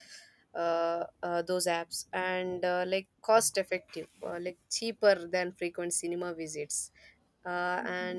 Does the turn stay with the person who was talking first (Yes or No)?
Yes